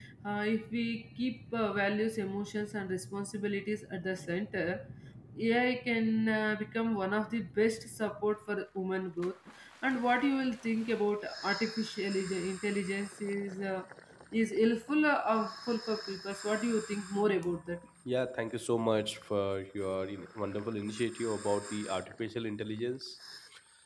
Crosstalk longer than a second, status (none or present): none